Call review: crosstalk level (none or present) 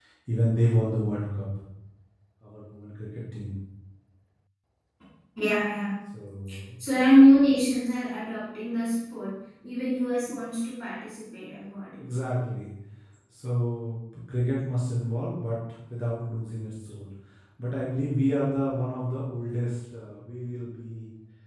none